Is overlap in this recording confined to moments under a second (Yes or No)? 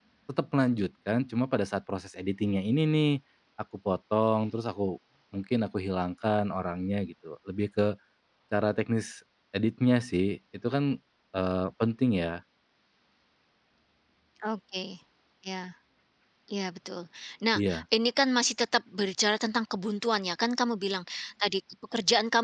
Yes